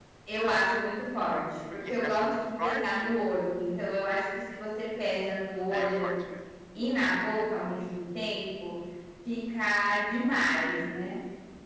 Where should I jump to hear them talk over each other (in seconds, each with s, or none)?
1.9 s